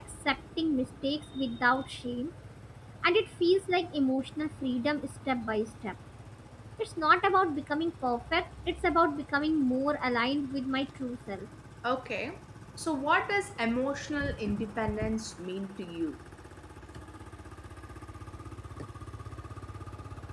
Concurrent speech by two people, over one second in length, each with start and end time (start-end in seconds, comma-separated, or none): none